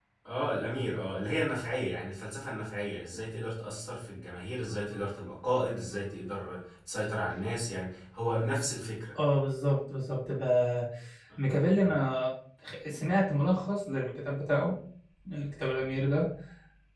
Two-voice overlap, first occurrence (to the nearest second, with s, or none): none